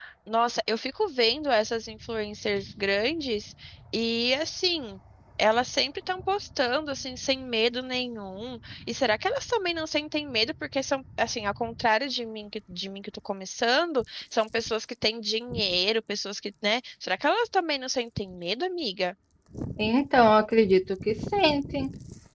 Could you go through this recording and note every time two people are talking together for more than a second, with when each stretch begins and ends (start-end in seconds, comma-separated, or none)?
none